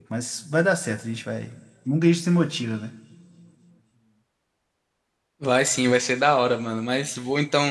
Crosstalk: none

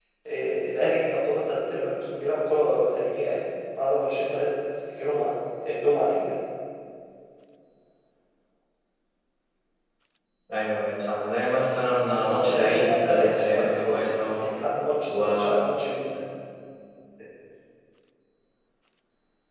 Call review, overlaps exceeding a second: present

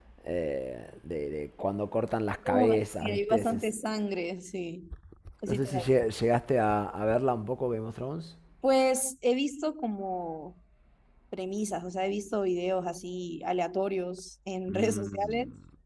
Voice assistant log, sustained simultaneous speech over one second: present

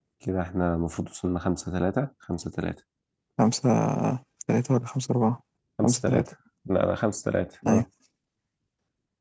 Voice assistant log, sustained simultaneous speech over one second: none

